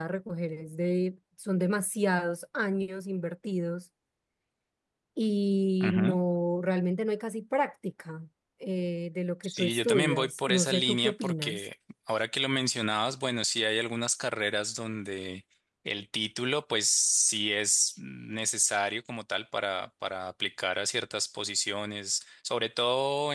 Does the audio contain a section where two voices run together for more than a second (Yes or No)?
Yes